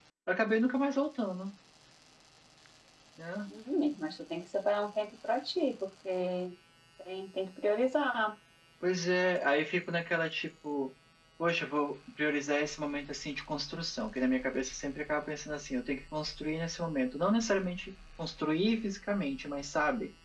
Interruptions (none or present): none